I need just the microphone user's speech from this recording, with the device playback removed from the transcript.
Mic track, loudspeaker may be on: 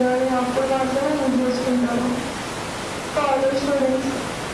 none

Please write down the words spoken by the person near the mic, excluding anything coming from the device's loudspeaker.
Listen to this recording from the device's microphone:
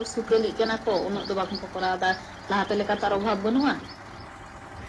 none

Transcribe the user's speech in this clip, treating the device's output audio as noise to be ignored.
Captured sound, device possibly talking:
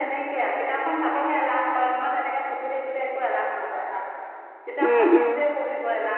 উম -উম

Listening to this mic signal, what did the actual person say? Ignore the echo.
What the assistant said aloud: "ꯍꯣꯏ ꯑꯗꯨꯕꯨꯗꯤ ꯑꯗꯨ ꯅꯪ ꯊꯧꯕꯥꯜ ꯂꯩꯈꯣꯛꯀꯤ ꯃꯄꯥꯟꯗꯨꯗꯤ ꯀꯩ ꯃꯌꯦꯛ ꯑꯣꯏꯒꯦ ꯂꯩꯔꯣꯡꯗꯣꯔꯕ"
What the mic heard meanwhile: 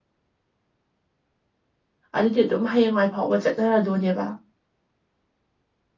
ꯑꯗꯨꯗꯤ ꯑꯗꯨꯝ ꯍꯌꯦꯡꯋꯥꯏ ꯐꯥꯎꯕ ꯆꯠꯅꯔꯗꯣꯏꯅꯦꯕ

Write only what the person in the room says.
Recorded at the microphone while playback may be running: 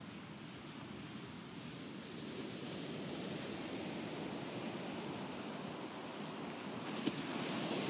none

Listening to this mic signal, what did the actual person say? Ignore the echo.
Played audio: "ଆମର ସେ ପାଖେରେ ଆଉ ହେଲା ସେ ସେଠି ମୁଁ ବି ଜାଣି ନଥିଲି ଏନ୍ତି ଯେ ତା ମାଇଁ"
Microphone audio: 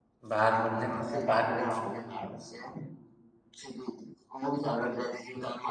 ବାହାର କରିନି ଦେଖିବା ବାହାର କରିବା

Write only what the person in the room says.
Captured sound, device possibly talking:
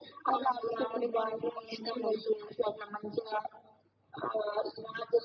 none

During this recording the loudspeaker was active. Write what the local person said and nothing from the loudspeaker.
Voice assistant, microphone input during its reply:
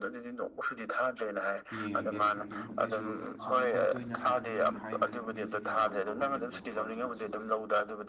ꯌꯦꯡꯉꯒꯦ ꯑꯗꯨꯝ ꯑꯗꯨꯏꯁꯨ ꯁꯨꯝ ꯑꯩꯈꯣꯏꯗꯤ ꯇꯣꯏꯅ ꯍꯥꯏꯖꯤꯟ ꯍꯥꯏꯕ ꯃꯤꯁꯦ ꯀꯌꯥ ꯉꯝꯕ ꯑꯣꯏꯒꯟꯗꯕꯀꯣ ꯑꯗꯨꯅ ꯁꯨꯝ

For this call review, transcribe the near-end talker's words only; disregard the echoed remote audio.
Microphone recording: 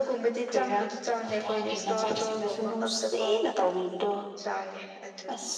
none

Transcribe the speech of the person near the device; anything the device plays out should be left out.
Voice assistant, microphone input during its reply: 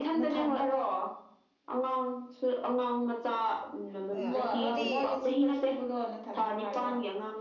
ꯑꯦ ꯑꯗꯨꯗꯤ ꯑꯁ

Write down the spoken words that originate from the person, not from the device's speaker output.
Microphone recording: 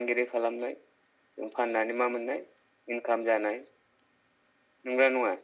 none

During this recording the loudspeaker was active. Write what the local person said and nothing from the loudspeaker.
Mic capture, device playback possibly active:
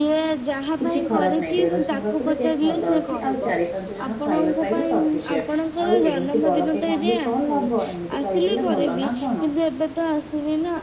କିଛି ଖରାପ ନାଇଁ ଦେଢଶହ ଟଙ୍କା କ ବି କେକ୍ ଭଲ ଅଛି ଆଉ ଚାରି ପାଞ୍ଚ ଜଣ ଖାଇବା ପାଇଁ ବି ସଫିସିଏଣ୍ଟ। ଆଉ ଏମିତି ବଡ କେକ୍ ଆଣିକି କଣ ଲାଭ ଏମିତି କହିଦେଲେ ଭଲ ନା କଣ?

